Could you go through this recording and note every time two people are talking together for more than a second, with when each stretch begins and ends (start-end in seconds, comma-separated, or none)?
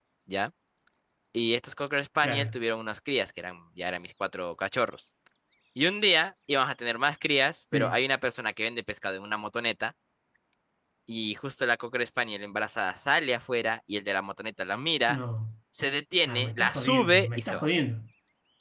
16.3-17.7